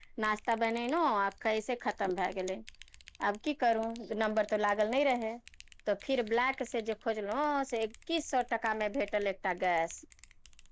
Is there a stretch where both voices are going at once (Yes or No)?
No